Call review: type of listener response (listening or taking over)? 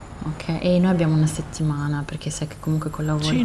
taking over